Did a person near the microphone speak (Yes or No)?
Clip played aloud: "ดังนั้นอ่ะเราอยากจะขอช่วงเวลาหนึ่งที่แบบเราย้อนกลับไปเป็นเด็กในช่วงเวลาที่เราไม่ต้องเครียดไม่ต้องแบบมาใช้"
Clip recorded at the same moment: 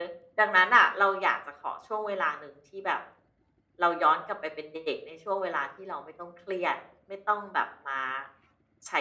No